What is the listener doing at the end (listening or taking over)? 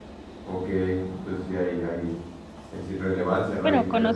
taking over